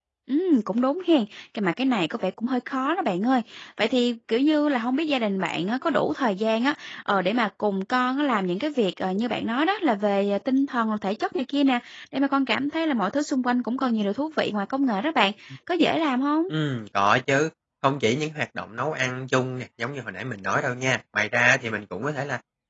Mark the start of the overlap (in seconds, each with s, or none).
none